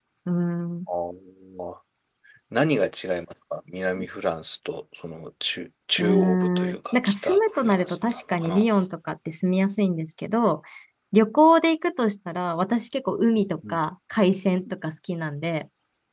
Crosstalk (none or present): present